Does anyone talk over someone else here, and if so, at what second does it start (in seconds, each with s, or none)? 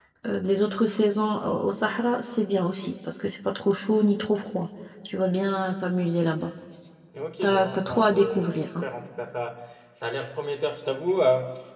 7.4 s